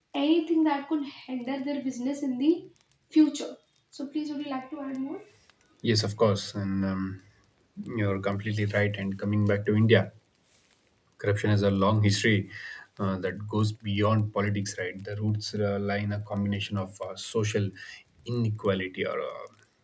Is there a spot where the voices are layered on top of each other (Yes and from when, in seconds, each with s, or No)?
No